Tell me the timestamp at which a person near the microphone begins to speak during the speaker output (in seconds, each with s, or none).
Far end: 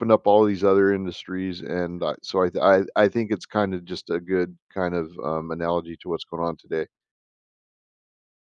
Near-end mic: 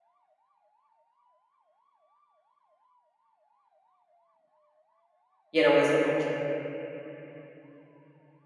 5.5 s